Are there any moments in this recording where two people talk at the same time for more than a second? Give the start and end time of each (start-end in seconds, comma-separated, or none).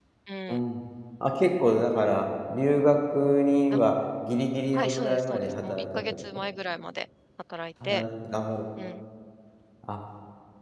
4.7-6.2